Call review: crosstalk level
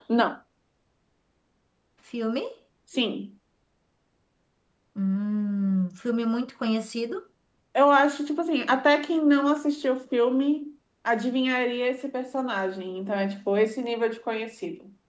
none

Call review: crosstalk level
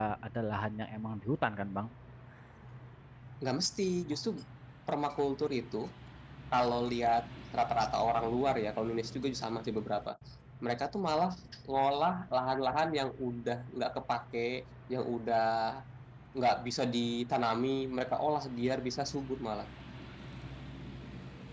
none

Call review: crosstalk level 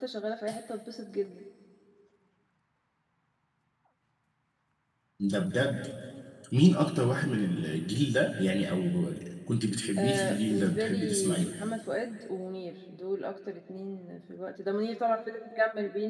present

